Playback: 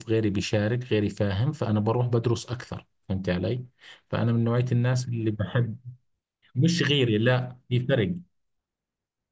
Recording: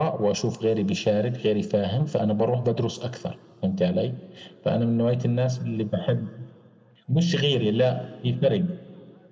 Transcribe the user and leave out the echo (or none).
none